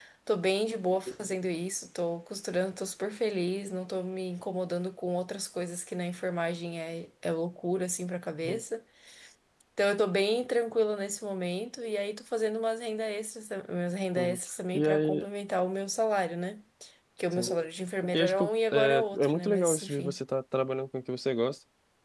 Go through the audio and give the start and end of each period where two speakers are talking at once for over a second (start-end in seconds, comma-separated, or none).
18.1-20.2